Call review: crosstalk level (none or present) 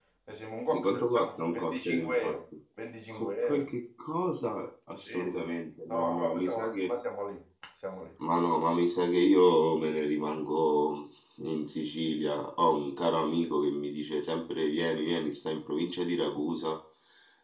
present